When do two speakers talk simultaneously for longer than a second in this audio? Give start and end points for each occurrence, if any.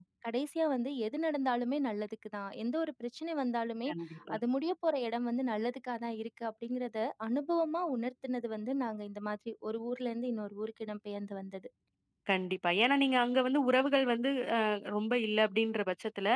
none

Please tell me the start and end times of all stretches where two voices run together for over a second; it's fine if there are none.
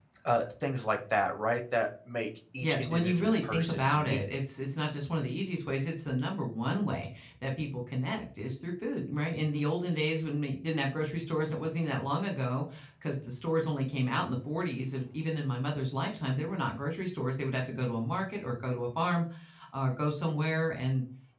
2.6-4.2

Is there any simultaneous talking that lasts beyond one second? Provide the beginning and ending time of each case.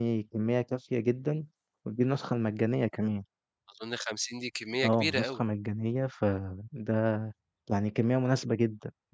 none

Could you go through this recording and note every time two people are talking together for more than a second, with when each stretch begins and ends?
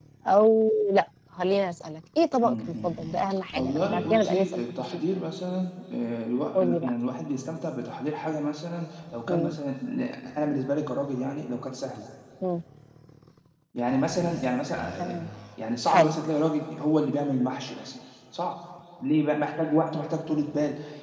3.5-5.0

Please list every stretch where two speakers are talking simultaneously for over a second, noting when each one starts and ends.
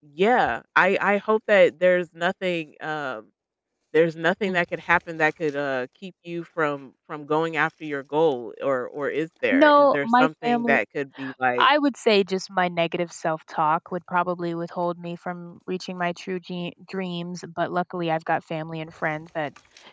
9.5-10.8

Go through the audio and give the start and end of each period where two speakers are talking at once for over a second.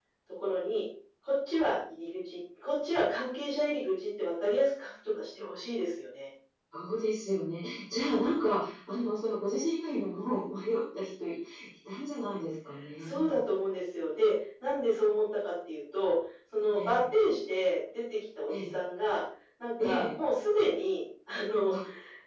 none

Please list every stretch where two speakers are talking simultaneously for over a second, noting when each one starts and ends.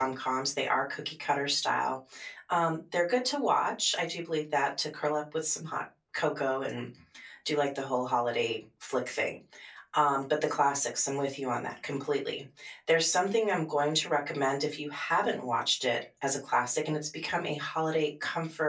none

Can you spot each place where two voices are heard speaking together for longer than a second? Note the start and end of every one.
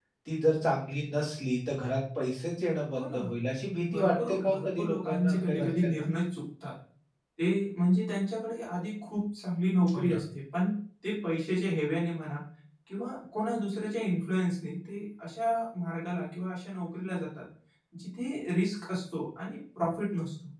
3.9-6.0

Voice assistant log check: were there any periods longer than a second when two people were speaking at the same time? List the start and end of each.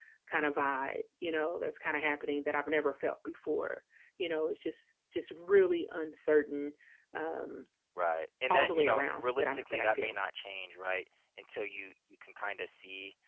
8.5-10.2

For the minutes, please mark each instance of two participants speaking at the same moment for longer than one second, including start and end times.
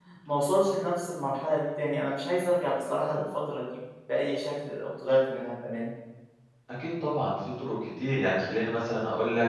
none

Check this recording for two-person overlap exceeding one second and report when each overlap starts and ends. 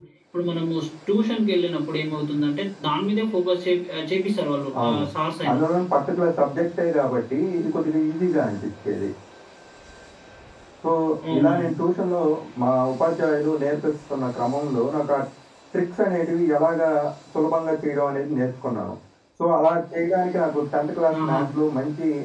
none

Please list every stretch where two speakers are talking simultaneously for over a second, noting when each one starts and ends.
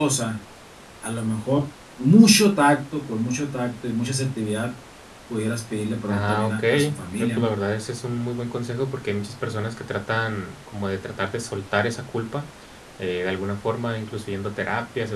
6.1-7.5

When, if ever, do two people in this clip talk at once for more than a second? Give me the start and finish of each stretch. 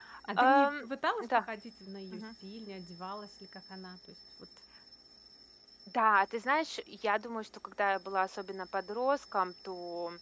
none

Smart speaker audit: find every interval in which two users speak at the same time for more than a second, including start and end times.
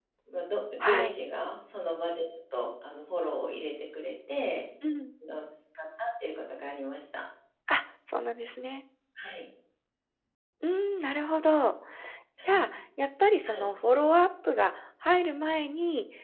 none

